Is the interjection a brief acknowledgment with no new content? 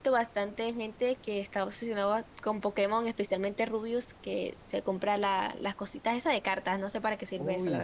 No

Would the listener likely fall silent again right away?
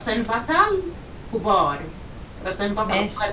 Yes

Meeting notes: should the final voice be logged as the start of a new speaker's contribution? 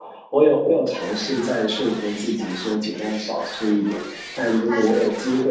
No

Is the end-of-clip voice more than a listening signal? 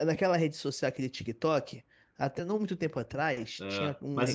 No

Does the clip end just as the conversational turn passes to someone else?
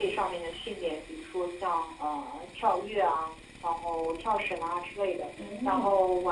No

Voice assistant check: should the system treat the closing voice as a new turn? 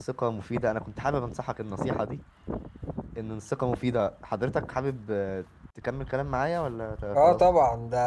Yes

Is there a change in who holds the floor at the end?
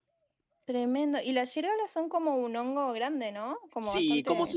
Yes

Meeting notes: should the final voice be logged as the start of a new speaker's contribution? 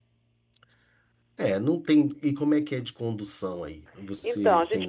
Yes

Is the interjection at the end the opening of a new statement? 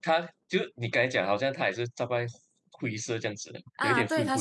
Yes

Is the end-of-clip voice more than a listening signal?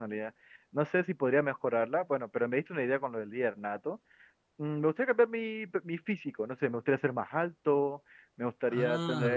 No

